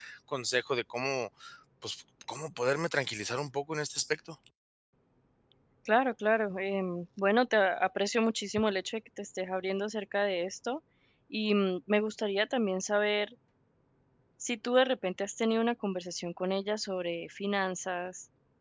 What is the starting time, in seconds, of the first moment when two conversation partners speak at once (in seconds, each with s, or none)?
none